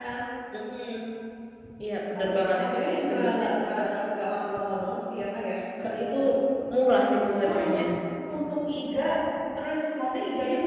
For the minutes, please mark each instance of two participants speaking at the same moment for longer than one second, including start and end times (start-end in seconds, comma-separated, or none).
2.2-3.5